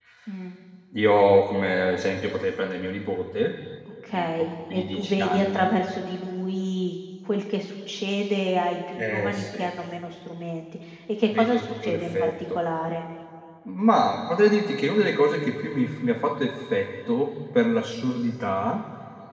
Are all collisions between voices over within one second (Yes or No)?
No